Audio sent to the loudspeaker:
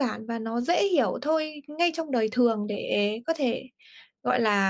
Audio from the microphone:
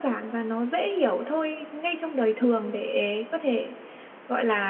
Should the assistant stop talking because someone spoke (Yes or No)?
No